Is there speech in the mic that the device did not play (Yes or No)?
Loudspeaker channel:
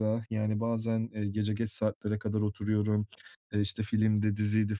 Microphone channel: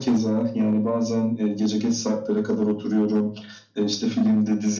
No